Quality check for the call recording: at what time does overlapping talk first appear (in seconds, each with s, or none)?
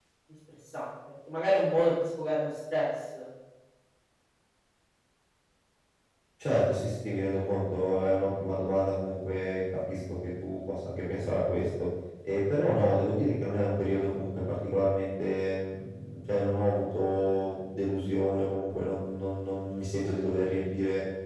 none